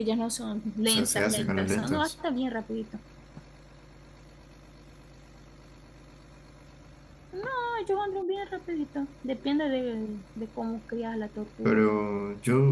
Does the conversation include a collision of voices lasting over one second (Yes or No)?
Yes